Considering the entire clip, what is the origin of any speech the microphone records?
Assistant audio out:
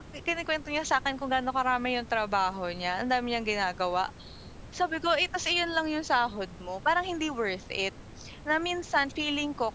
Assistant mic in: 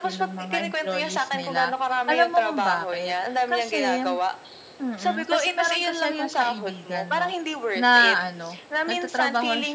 both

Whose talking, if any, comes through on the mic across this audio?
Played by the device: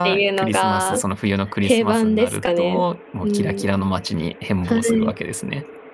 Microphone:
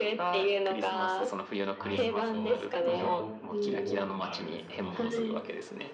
both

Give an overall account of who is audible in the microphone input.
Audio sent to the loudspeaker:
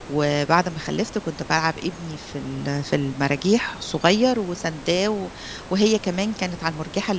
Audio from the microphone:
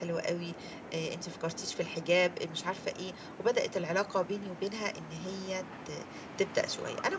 user only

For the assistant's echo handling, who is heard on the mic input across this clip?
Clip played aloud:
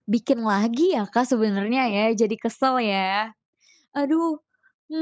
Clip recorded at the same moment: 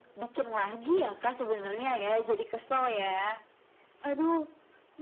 echo only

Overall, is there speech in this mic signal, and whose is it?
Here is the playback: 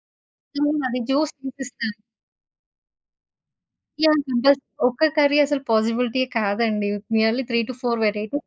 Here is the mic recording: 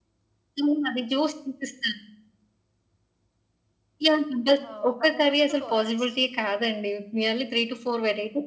both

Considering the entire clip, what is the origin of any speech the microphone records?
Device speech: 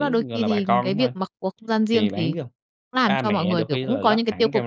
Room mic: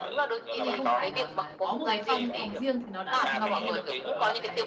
both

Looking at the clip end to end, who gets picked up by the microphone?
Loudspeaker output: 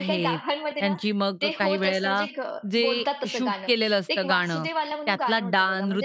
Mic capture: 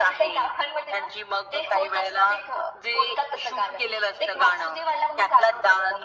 echo only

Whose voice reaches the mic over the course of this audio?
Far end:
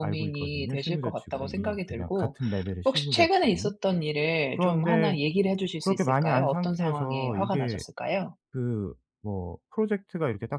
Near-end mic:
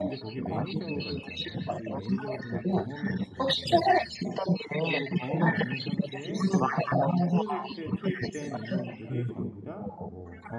both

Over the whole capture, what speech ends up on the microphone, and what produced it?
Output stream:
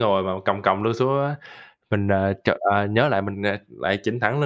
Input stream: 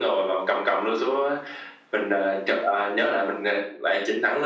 echo only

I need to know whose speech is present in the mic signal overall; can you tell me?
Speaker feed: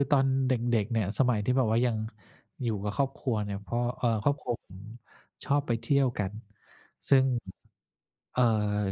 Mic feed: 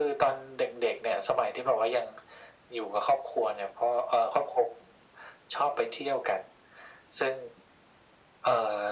echo only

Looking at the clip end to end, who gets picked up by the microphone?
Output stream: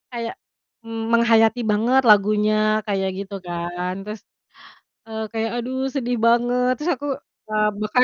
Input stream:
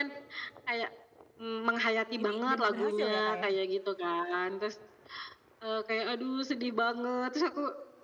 both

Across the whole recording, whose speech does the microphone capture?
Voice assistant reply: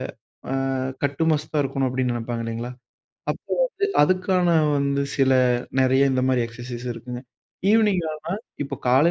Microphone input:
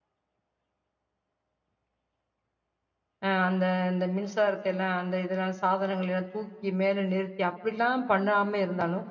user only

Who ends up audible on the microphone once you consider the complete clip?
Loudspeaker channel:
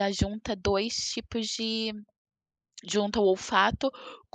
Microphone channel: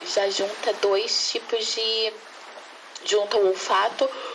echo only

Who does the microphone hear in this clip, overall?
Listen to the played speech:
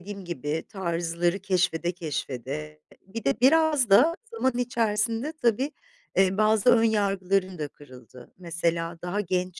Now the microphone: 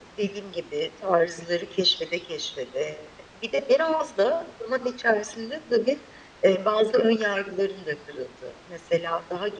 echo only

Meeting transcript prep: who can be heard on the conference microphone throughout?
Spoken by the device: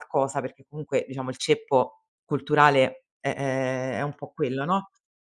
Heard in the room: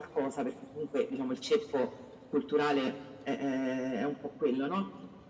echo only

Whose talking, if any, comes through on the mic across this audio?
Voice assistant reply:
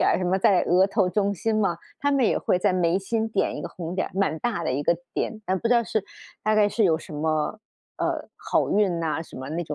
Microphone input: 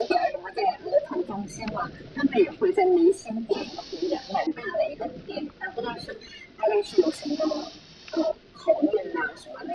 echo only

